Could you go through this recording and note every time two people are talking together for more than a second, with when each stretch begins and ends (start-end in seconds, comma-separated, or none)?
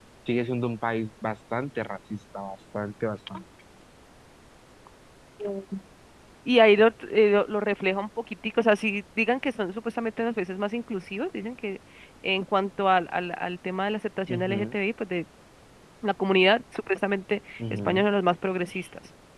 none